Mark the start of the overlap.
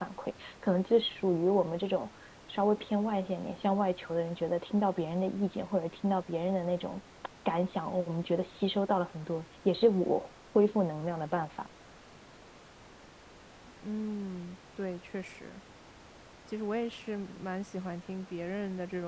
none

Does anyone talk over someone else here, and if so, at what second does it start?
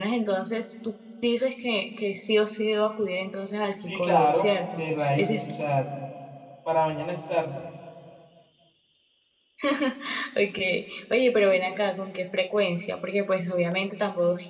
3.8 s

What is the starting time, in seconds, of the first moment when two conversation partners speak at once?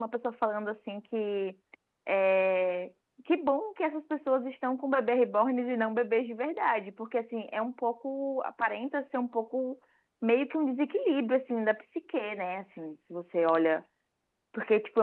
none

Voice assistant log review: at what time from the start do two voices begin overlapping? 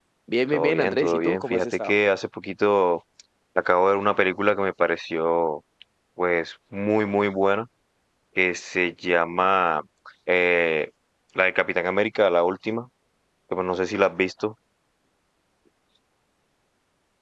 0.5 s

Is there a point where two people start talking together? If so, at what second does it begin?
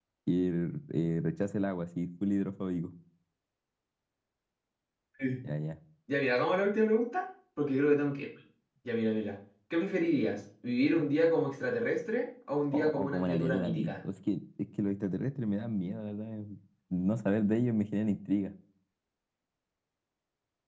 12.7 s

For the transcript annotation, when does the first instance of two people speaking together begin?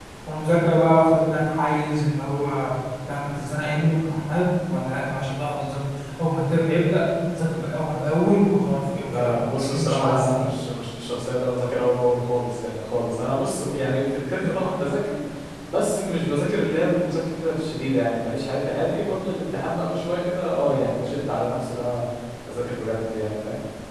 9.1 s

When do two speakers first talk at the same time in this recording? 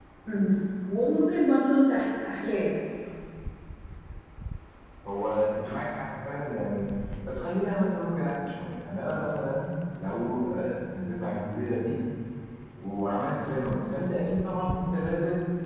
none

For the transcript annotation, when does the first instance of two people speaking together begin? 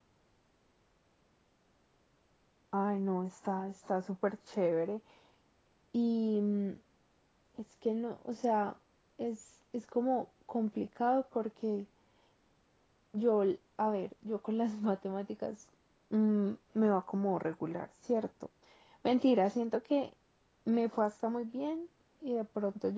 none

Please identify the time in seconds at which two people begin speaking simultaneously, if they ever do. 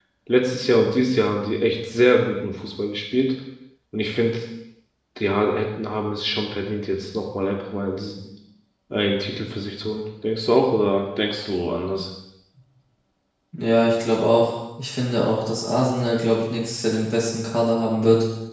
none

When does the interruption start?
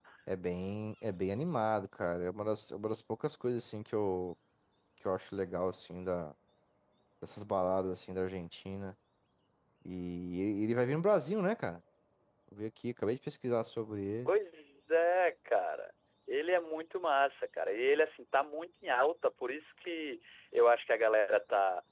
none

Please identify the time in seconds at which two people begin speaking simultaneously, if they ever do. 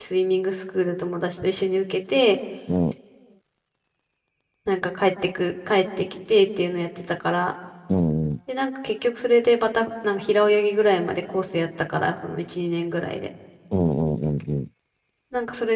none

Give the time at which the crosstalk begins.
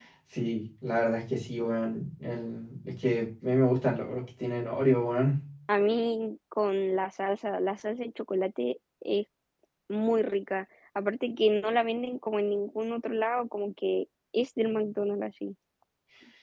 none

